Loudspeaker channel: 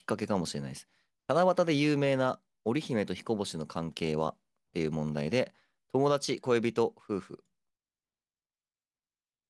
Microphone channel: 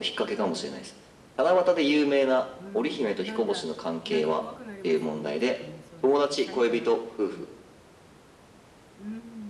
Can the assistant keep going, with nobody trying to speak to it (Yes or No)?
No